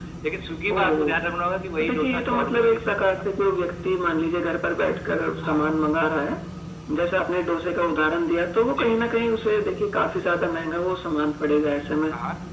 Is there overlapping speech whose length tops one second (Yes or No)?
Yes